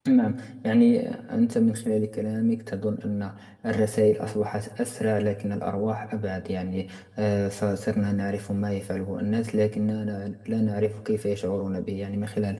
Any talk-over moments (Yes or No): No